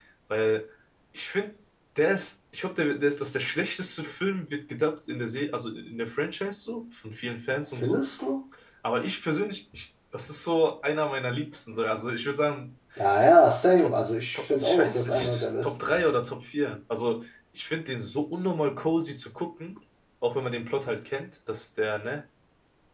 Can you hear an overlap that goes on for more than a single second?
Yes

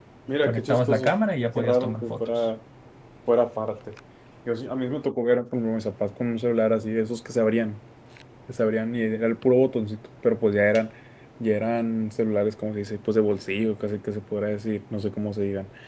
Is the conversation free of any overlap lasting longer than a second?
No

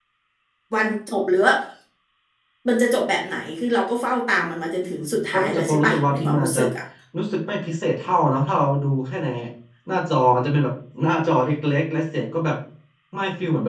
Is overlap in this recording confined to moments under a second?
No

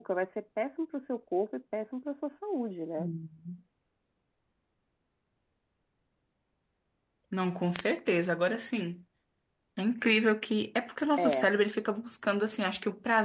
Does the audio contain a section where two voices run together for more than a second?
No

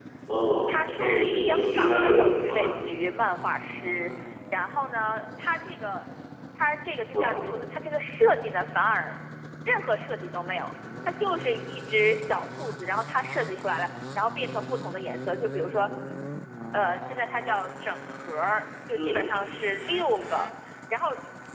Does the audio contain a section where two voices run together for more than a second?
Yes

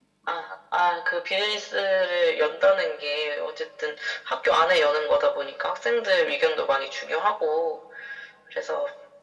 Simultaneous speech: No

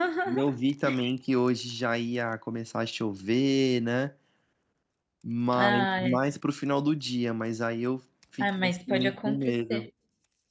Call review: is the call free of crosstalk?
No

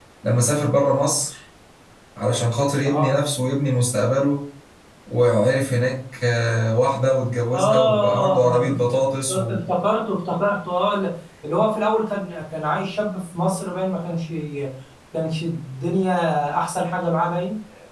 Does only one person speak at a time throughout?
No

